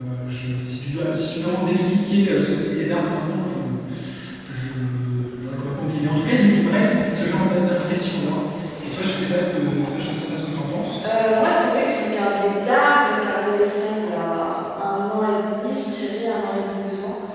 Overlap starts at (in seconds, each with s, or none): none